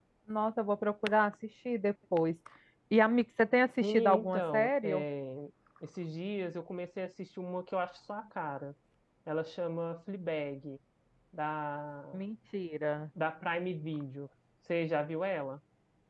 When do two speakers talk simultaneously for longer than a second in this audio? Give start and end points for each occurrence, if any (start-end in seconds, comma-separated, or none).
3.8-5.0